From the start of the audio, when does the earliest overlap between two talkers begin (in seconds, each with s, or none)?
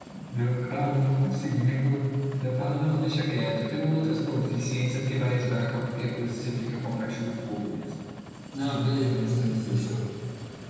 8.6 s